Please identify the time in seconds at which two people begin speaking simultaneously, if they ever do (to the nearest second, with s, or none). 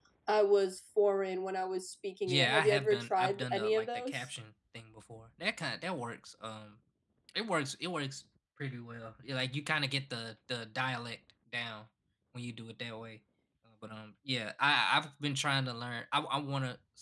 2 s